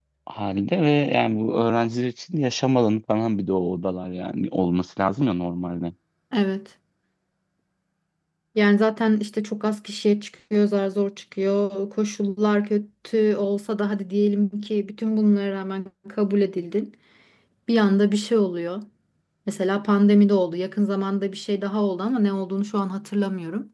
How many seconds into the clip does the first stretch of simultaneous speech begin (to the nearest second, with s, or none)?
none